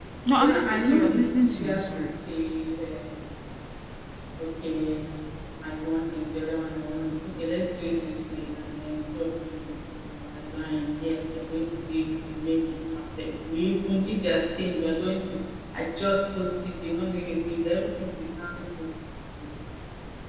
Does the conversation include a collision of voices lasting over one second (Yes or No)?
Yes